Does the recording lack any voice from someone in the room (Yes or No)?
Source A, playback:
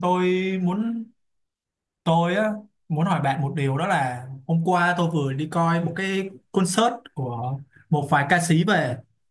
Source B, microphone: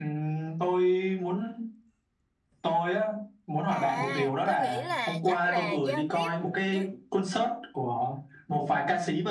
No